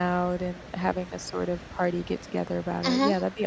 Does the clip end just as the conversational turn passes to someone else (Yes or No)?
Yes